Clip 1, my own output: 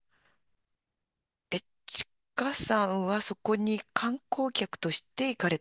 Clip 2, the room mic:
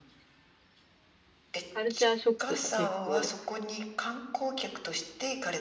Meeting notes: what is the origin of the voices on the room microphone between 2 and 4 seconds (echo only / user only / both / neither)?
both